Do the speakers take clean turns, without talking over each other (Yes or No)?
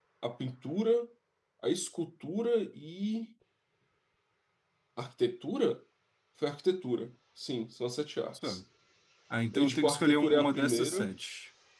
No